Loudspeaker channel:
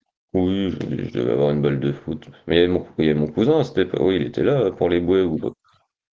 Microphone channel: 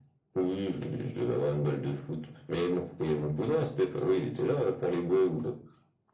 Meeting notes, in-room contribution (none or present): none